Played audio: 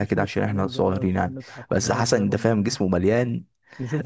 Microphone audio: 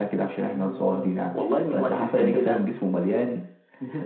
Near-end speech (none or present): present